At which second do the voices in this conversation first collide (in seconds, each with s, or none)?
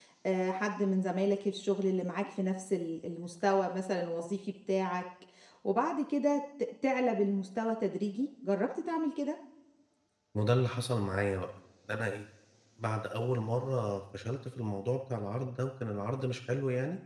none